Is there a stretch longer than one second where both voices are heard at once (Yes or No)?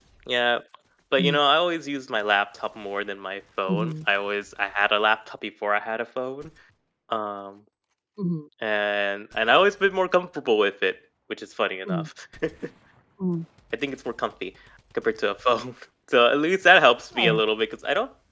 No